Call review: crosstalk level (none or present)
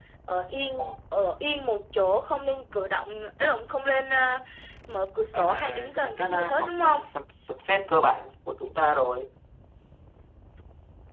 present